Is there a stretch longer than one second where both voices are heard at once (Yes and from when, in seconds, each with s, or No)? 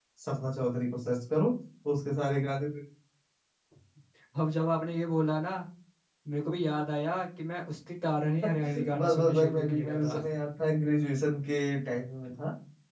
Yes, from 8.4 s